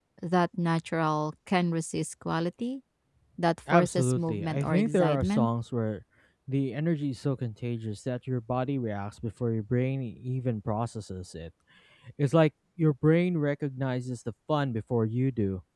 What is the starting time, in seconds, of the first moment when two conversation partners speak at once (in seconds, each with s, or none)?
3.7 s